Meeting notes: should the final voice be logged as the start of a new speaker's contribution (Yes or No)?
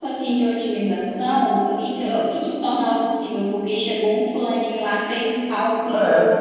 No